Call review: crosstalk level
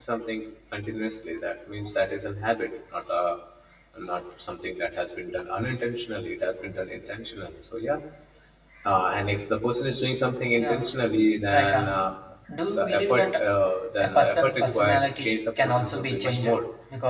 present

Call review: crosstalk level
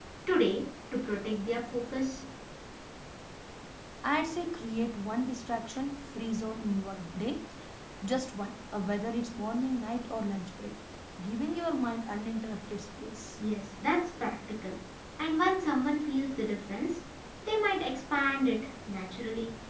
none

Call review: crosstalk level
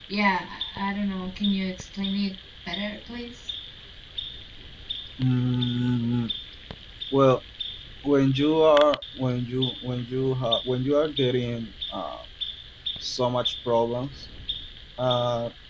none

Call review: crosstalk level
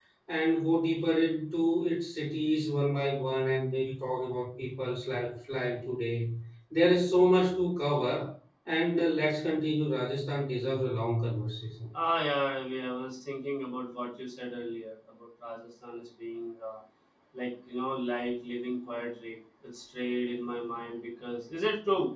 none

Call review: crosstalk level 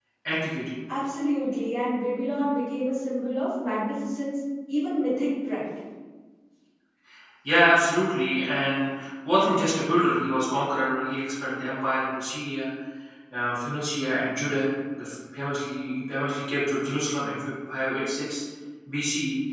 none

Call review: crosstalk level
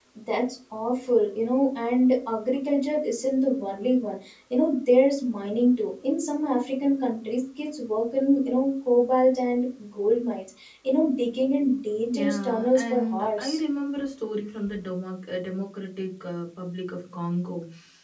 present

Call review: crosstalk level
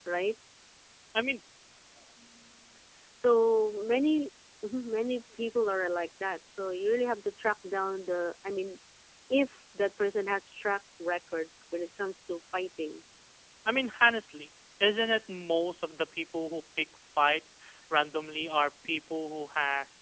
none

